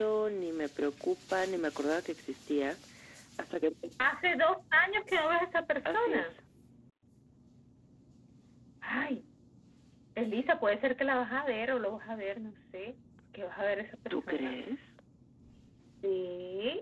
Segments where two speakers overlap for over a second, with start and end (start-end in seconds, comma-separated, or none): none